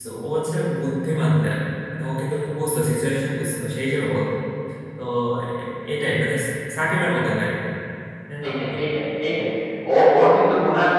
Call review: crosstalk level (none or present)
none